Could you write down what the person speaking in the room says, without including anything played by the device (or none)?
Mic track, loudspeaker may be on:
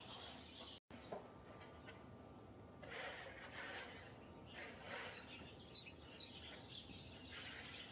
none